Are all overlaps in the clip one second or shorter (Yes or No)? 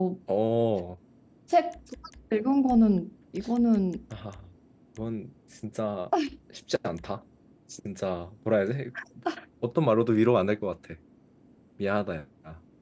Yes